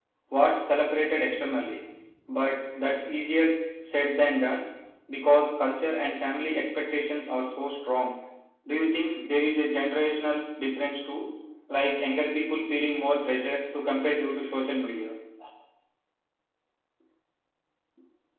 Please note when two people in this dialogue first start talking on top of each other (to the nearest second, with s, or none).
none